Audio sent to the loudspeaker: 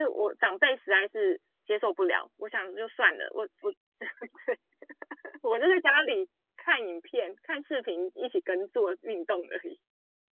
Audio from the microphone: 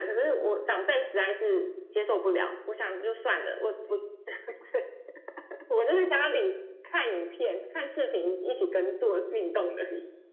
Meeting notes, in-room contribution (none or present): none